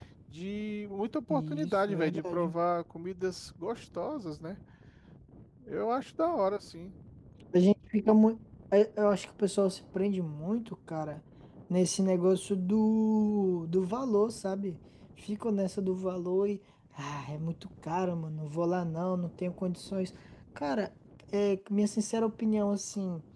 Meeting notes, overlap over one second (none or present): present